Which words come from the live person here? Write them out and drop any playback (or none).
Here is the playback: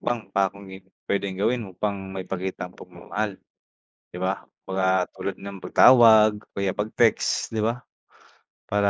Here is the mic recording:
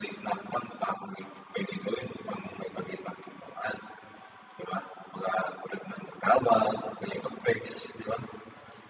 none